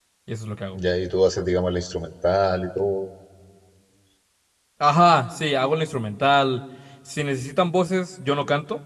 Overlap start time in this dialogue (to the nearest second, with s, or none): none